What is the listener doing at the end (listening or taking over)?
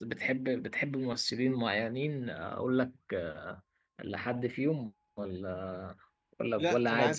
taking over